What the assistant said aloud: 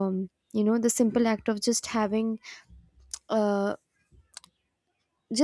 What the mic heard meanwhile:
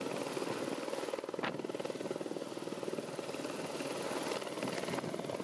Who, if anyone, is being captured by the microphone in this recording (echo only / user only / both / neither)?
neither